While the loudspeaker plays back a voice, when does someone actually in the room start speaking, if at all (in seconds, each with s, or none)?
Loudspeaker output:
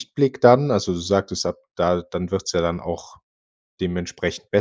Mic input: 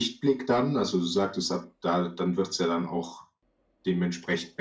none